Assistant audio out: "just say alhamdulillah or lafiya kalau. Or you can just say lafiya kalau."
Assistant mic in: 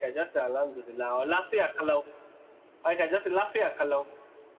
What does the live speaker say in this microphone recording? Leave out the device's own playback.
none

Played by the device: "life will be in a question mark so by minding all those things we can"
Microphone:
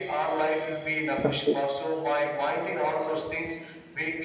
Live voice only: Absolutely.

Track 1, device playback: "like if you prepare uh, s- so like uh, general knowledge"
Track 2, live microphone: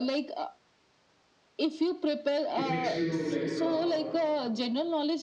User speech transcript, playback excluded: it makes you like uh,

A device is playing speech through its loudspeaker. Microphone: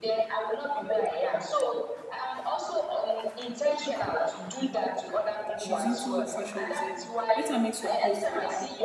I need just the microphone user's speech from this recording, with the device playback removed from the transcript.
She's into fashion designing. Let her make some clothes for

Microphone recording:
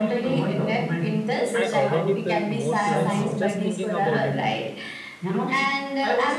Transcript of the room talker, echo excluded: I already feel more curious just thinking about it.

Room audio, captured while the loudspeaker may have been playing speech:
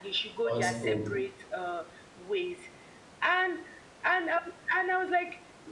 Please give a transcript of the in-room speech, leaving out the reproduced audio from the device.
false hope.

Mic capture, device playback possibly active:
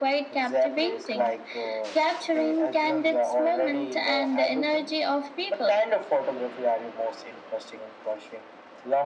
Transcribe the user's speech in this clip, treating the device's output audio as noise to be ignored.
none

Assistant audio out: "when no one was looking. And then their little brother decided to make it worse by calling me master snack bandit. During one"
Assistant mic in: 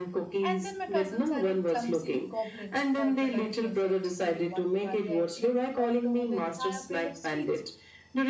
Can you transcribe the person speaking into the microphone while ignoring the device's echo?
And then my cousins added clumsy goblin for dramatic effect. During one Diwali, I accidentally knocked over the entire plate of sweets,

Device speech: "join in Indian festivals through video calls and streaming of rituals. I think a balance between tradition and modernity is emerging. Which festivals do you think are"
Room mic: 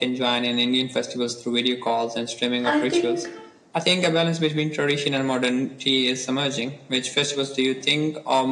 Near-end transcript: I think

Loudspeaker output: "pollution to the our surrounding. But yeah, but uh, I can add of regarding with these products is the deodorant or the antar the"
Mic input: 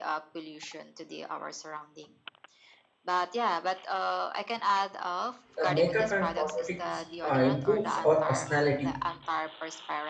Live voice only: the makeup and cosmetics uh, improves our personality

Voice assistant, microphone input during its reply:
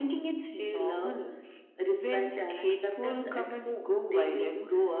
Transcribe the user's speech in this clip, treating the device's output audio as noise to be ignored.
none

